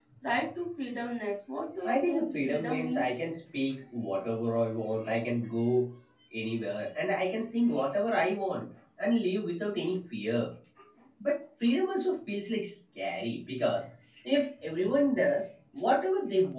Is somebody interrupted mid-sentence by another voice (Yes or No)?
Yes